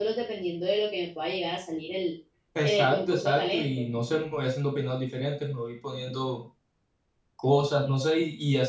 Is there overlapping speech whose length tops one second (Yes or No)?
Yes